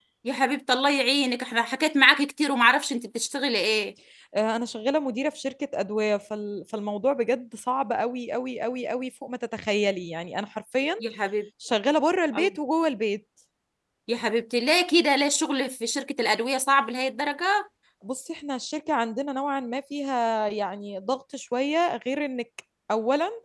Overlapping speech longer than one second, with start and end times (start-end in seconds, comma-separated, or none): none